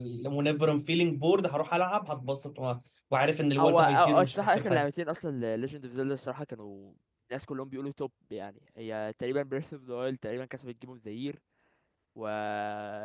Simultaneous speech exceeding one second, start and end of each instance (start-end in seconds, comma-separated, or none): 3.6-4.8